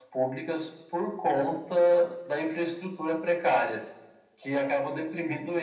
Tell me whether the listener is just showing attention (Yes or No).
Yes